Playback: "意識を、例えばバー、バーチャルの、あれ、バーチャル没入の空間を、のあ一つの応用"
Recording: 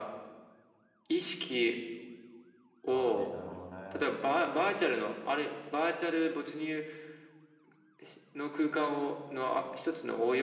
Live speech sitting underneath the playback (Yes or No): Yes